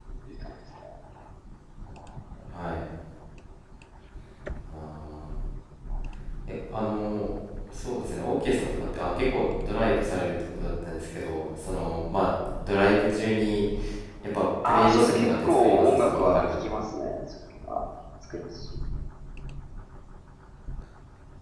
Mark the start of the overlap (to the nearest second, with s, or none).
15 s